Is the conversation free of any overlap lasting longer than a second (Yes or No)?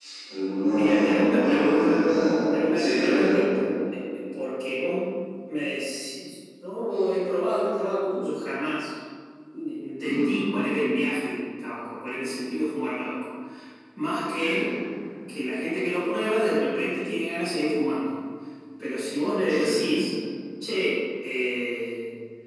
No